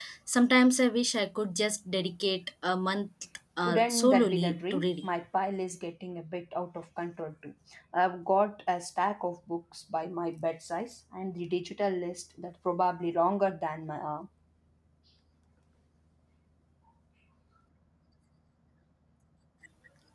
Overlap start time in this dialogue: 4 s

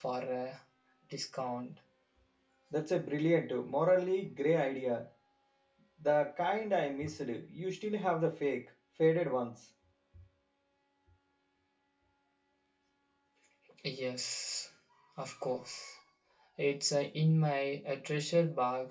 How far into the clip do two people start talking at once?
none

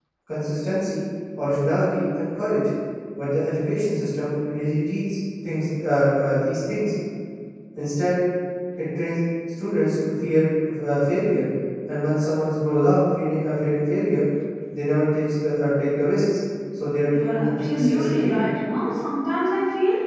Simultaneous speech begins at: 17 s

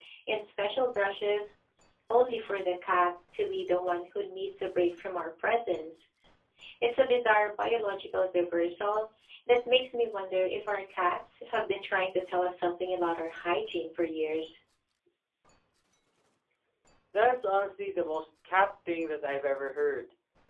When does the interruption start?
none

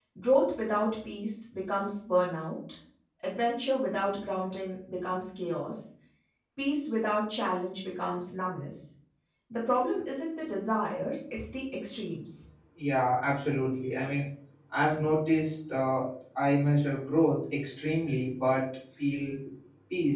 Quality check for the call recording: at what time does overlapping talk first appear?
none

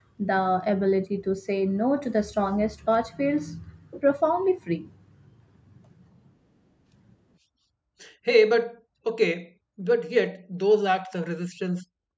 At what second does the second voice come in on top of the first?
none

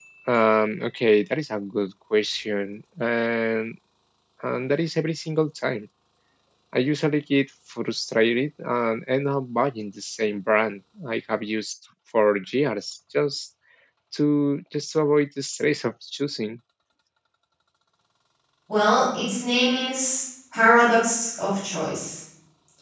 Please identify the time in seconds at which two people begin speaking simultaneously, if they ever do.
none

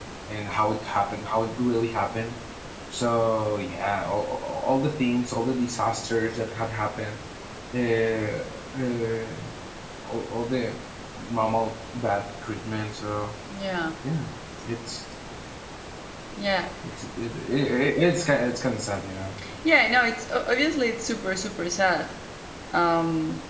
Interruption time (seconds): none

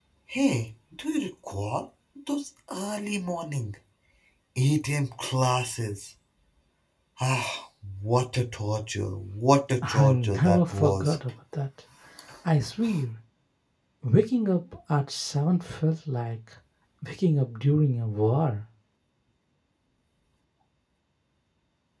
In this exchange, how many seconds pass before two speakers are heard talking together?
10 s

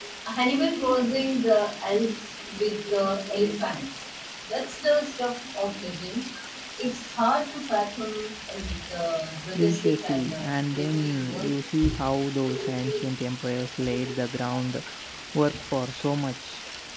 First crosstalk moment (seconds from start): 10 s

